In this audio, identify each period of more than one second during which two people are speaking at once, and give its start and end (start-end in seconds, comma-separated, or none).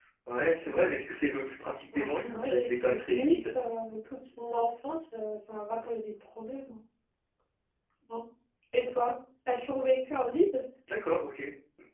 1.9-3.4